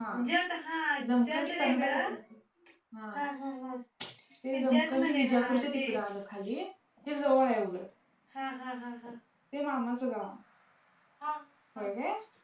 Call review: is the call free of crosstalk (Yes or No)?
No